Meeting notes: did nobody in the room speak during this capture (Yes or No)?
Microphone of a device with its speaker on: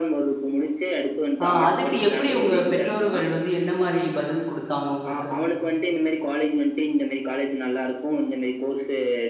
No